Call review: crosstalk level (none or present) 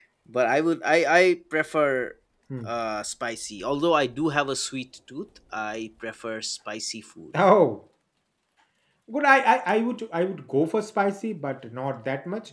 none